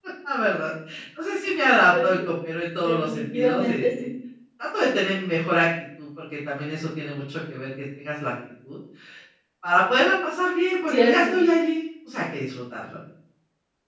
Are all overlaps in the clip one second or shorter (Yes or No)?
No